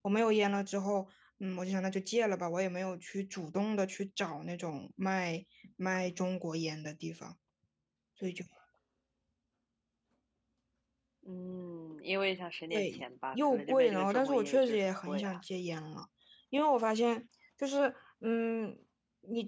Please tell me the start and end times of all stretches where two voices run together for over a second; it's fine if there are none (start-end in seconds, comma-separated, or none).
13.3-15.4